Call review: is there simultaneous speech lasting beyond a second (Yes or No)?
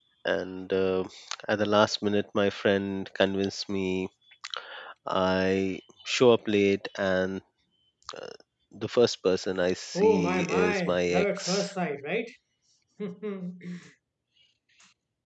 Yes